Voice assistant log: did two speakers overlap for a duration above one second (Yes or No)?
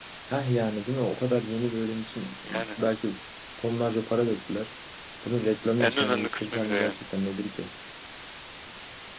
Yes